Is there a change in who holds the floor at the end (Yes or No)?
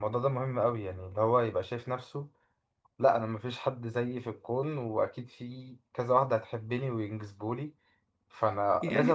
Yes